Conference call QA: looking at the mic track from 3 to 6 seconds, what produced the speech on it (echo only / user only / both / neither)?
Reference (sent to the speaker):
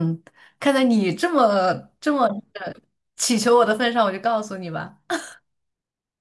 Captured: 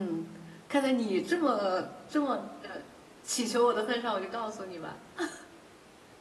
echo only